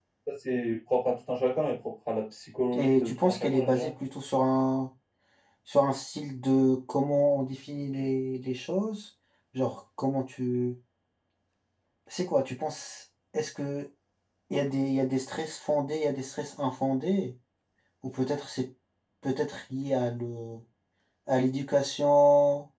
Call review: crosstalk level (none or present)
present